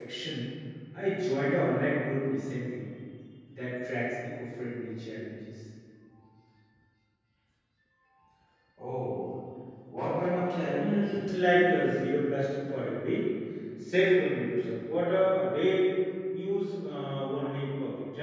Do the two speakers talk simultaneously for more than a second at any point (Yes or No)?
No